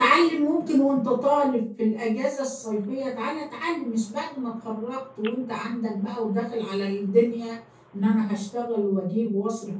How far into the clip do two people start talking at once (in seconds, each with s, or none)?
none